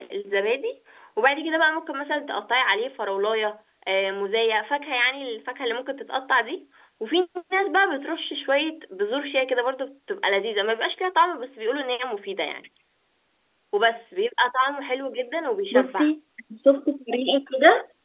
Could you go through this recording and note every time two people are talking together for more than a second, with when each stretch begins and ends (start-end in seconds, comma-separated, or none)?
none